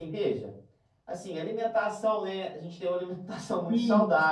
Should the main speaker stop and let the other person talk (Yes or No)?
No